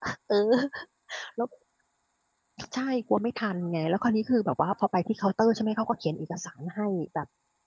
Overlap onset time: none

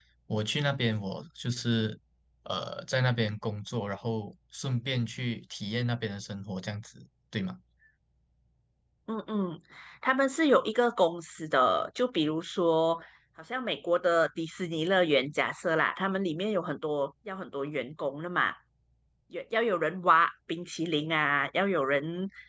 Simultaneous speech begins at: none

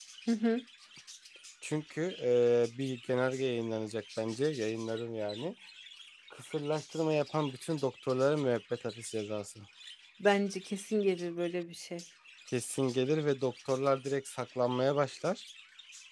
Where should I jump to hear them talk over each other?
none

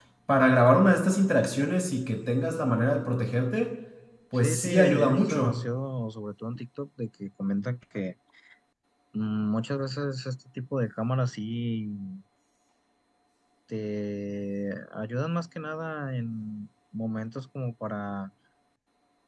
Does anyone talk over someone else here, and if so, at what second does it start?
4.3 s

